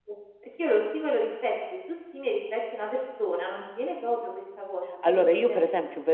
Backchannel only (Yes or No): No